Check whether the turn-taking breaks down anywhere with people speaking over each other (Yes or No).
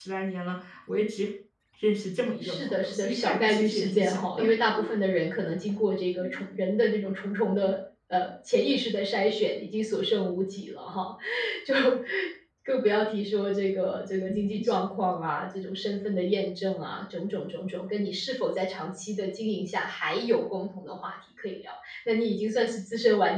Yes